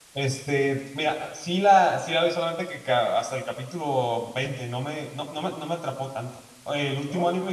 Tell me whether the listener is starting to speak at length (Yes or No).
No